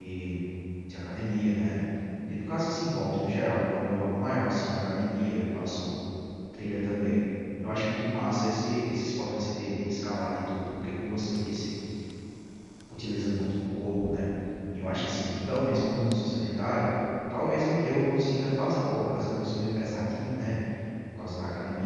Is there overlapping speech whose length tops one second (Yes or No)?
No